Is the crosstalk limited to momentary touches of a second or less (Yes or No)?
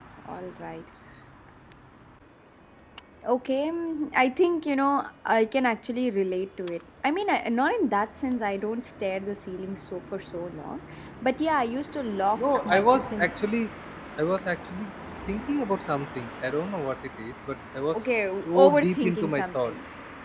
No